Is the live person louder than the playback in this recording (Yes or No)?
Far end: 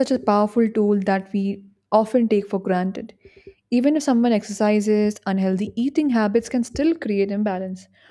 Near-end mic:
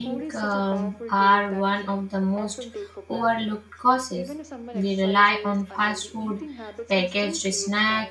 Yes